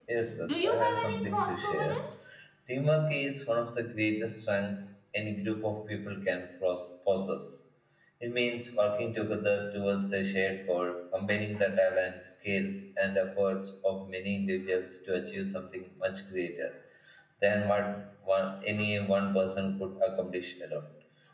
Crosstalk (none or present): present